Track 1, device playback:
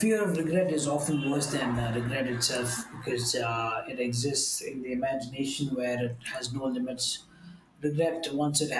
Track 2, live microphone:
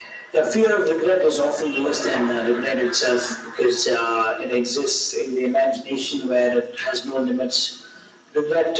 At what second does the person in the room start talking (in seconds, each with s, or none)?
none